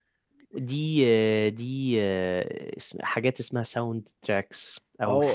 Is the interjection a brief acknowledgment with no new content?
No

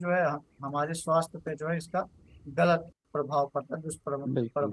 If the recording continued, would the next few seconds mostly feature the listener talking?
Yes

